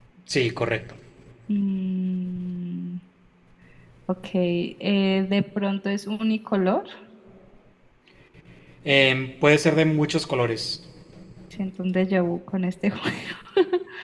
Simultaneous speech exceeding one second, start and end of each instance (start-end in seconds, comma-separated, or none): none